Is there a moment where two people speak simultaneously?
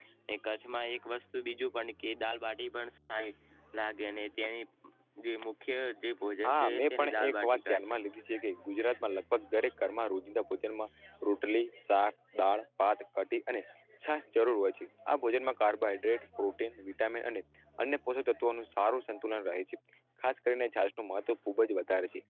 Yes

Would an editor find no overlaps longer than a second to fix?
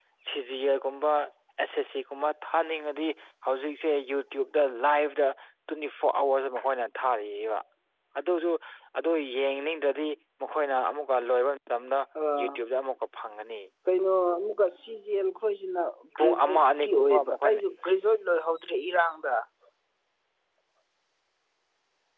No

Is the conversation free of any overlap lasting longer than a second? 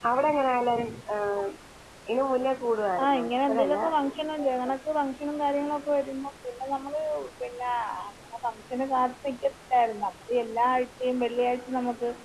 No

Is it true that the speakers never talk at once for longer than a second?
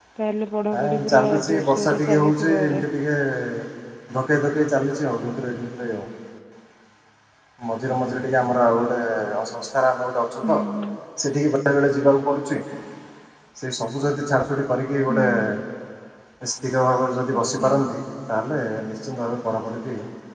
No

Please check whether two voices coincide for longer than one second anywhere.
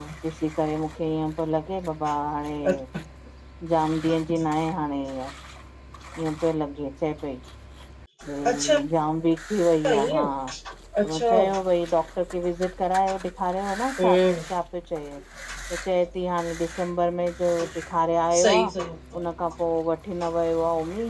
No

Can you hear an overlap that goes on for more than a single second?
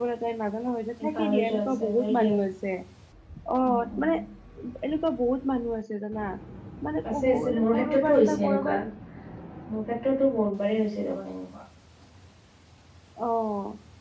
Yes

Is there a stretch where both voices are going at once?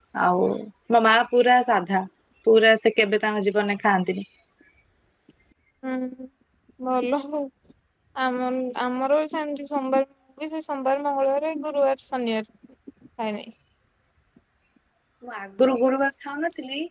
No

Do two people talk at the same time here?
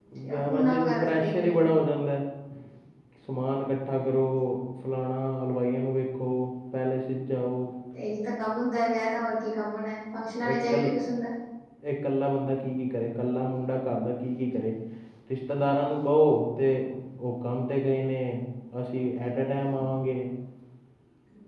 Yes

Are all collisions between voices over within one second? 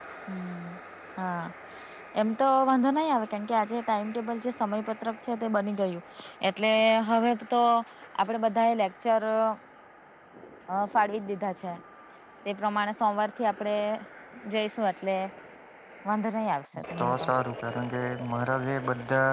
Yes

